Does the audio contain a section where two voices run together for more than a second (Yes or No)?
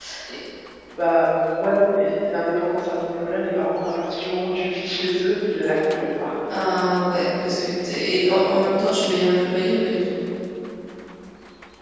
No